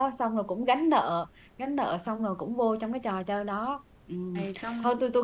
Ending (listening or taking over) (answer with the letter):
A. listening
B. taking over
A